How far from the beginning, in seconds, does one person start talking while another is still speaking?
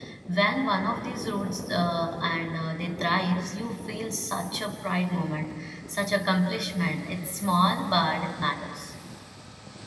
none

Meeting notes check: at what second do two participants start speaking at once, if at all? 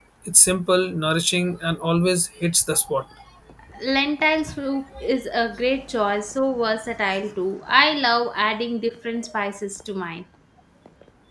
none

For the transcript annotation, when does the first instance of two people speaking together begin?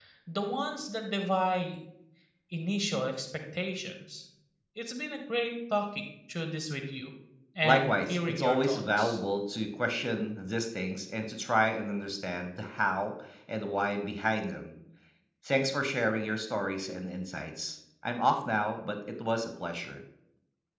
7.6 s

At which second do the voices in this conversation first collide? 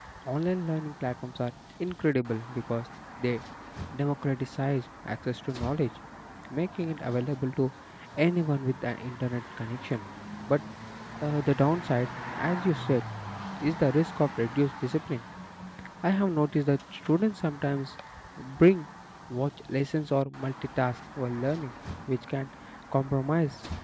none

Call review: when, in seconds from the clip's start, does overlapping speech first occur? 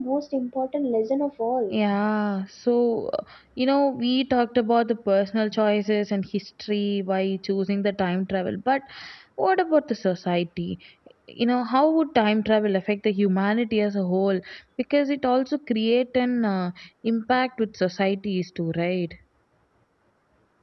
none

